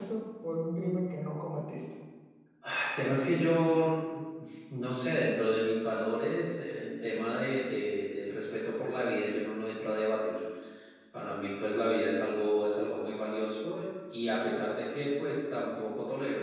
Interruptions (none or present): none